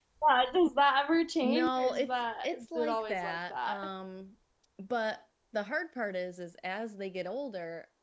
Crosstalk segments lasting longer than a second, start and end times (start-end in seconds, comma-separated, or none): 1.4-3.9